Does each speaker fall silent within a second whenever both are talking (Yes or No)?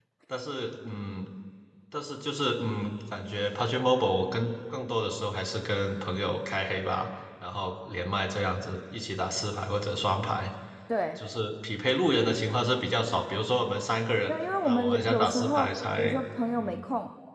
No